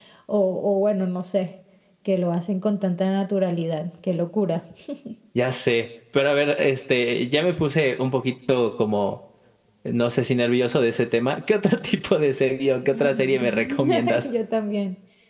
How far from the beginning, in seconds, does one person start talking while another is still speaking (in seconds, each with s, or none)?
12.9 s